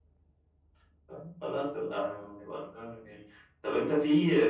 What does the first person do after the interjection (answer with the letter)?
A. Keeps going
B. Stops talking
A